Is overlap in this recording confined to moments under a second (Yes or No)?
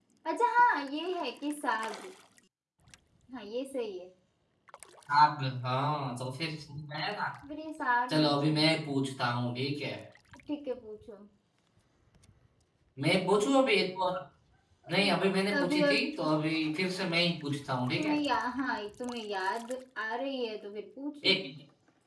Yes